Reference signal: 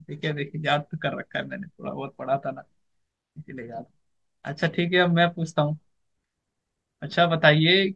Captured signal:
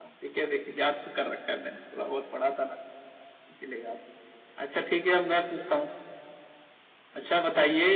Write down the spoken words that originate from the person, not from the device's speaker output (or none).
none